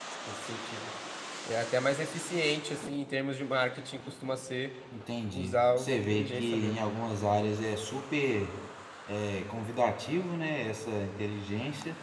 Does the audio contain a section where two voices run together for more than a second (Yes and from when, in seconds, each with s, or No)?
Yes, from 5.3 s